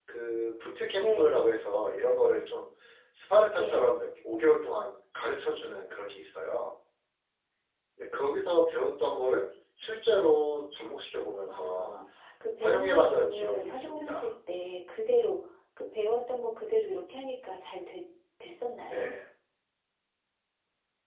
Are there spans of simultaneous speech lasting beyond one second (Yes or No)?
Yes